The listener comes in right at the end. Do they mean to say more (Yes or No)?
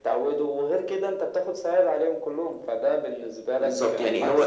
Yes